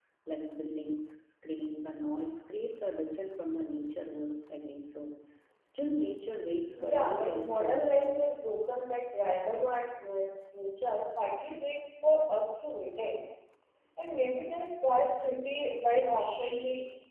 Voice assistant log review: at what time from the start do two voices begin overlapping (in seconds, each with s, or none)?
6.8 s